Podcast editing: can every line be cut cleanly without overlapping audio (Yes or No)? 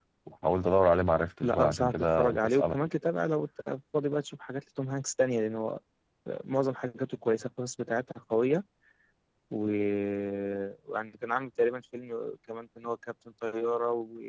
No